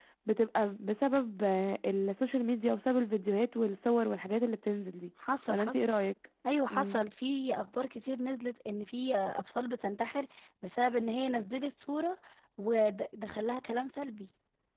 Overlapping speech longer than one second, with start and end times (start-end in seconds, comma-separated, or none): none